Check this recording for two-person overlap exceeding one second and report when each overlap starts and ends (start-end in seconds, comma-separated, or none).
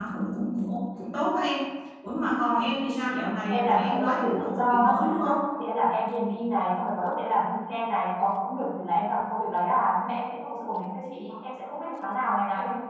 3.5-5.4